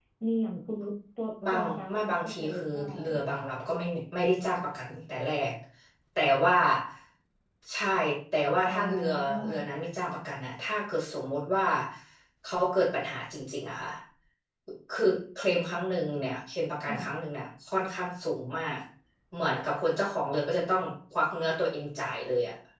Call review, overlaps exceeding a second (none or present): present